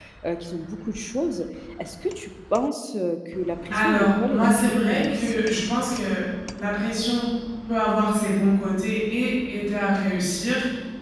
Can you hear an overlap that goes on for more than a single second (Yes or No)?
Yes